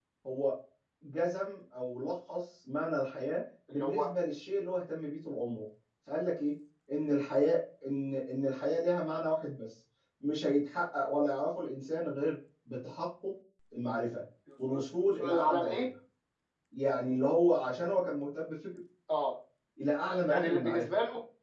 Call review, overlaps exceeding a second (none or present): present